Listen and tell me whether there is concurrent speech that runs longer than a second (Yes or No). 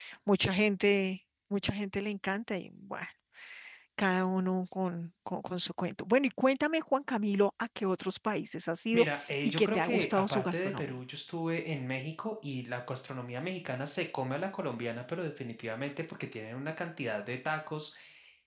Yes